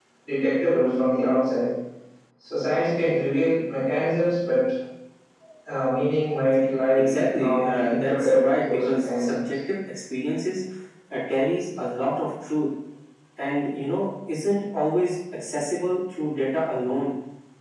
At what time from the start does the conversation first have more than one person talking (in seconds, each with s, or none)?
7.0 s